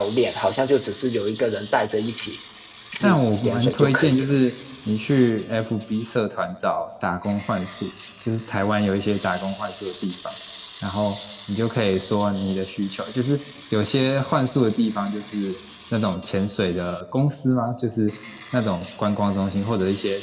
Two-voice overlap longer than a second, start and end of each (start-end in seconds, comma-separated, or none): 3.0-4.3